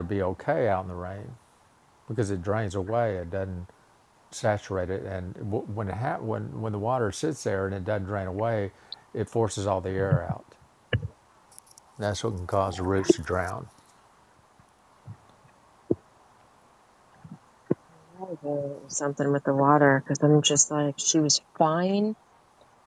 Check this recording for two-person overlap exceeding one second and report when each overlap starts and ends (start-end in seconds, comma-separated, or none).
none